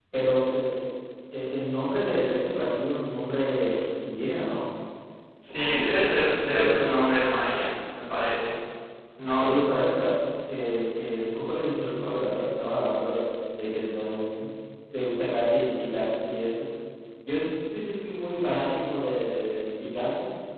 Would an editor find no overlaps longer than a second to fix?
No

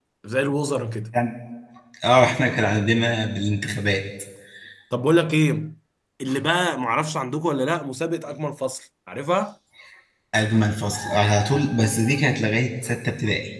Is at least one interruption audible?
No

